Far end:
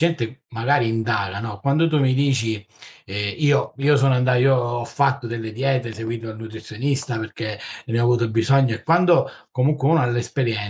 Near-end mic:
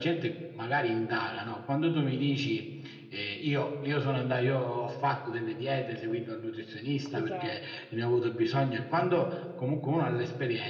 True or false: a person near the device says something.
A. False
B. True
B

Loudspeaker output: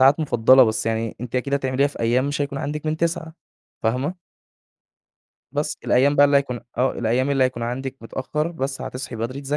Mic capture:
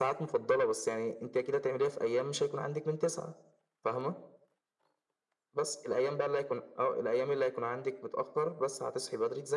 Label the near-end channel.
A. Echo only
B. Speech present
A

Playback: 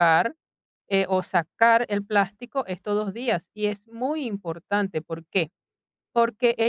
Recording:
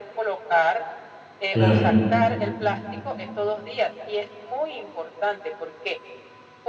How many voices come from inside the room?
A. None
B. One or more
B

